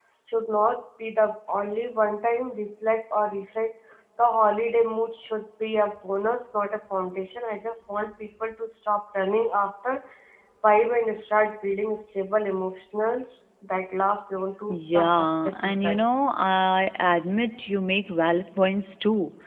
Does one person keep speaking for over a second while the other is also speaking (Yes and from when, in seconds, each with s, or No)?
Yes, from 14.7 s